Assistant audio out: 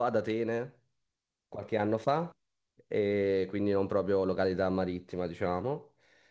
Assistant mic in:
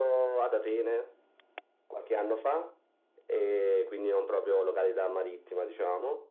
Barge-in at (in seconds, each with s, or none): none